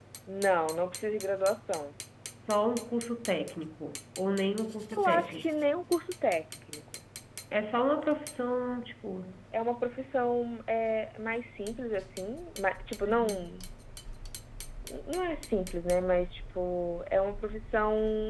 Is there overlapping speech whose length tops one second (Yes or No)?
No